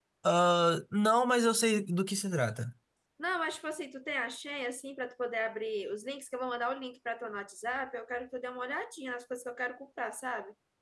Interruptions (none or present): none